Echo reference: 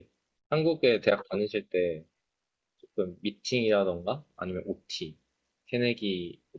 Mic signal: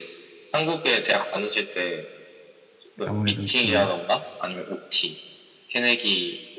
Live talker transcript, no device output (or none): 아무래도 좀